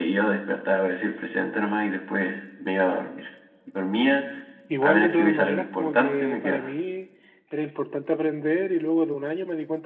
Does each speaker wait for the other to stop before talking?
No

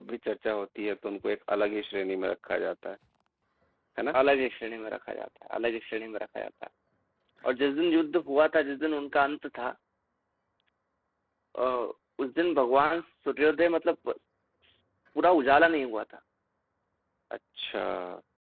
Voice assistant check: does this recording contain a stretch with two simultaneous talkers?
No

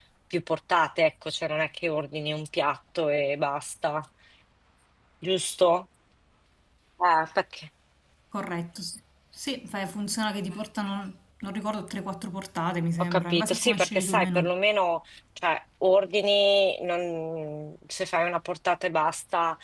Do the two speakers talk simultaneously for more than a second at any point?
Yes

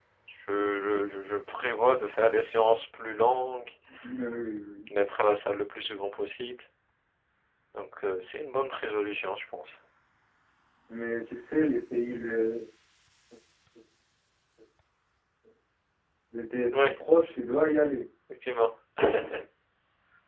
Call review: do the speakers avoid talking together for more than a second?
Yes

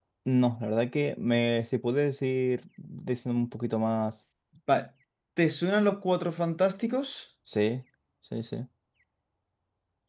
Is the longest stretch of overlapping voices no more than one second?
Yes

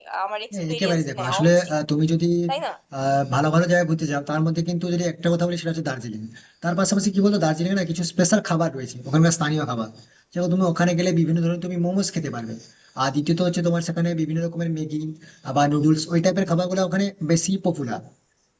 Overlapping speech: Yes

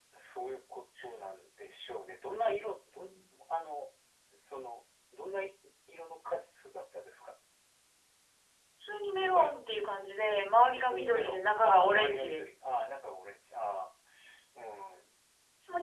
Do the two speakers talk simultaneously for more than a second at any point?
Yes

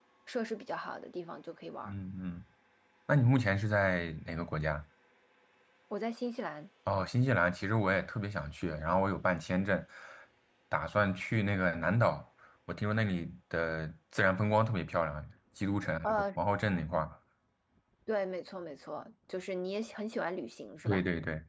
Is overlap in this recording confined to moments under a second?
Yes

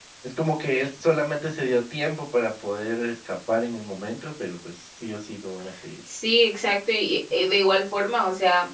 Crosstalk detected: No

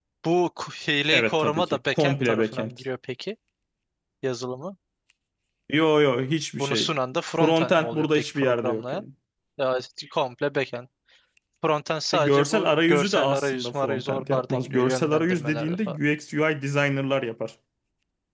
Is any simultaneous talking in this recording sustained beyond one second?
Yes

